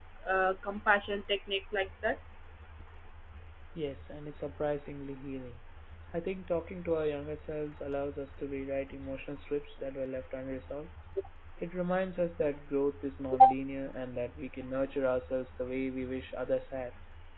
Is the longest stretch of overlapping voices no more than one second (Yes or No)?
Yes